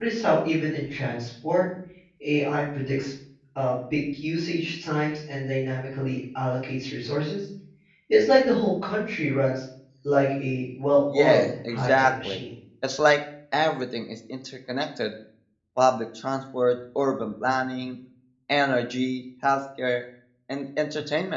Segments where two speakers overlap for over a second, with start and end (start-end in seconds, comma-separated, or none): 11.1-12.4